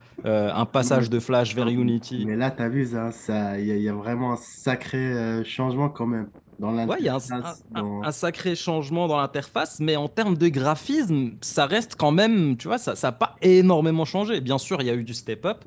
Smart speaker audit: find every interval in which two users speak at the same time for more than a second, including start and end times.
6.9-8.1

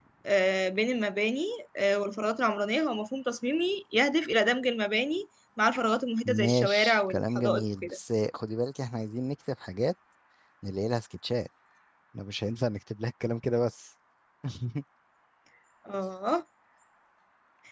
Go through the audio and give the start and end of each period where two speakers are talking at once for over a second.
6.2-8.0

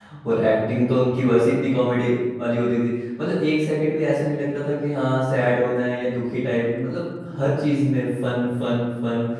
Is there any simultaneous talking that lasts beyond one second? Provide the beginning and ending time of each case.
none

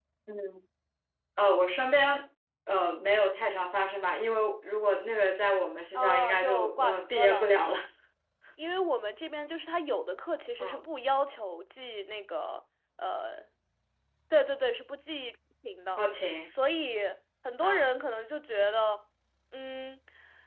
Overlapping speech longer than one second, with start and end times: 6.0-7.5

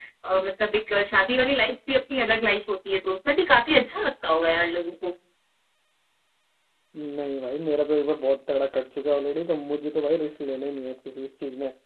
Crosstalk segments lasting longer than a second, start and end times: none

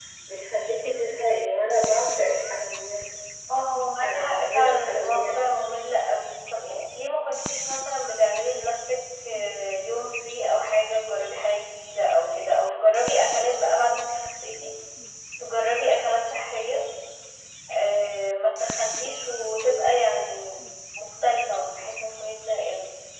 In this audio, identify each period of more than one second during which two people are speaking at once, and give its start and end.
4.0-5.3

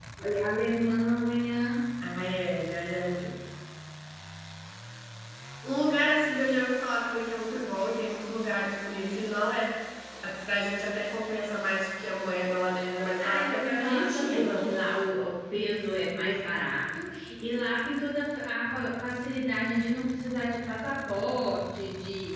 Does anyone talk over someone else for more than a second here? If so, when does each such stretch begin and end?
13.2-14.7

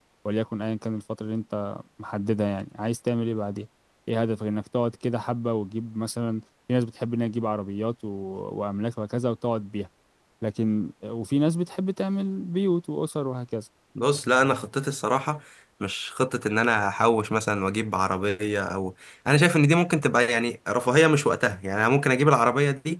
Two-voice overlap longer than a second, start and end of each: none

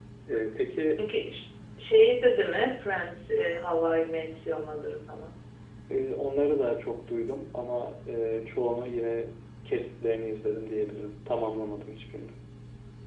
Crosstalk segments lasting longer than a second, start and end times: none

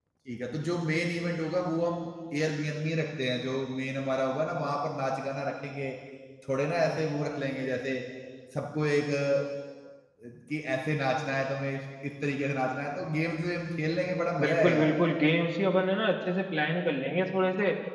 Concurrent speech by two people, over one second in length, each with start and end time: none

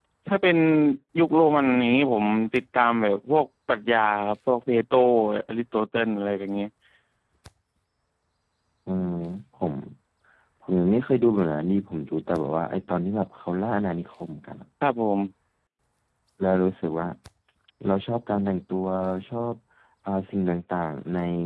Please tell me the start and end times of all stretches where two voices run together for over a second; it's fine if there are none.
none

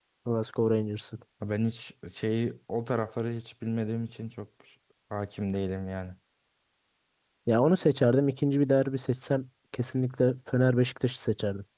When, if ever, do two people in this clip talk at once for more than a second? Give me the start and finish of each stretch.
none

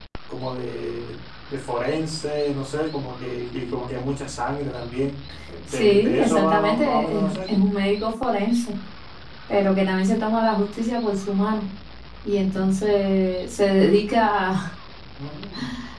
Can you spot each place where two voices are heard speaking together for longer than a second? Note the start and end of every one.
5.7-7.6

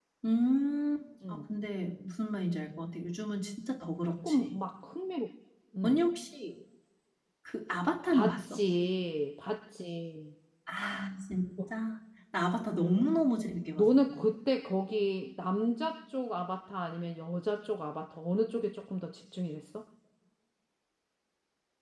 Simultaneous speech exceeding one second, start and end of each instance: none

